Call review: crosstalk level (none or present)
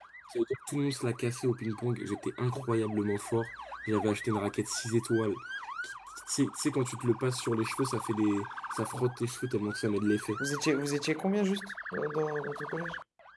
none